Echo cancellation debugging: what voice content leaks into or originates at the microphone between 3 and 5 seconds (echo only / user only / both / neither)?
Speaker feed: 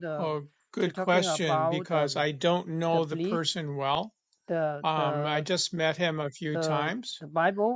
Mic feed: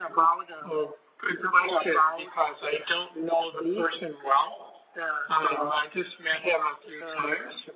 echo only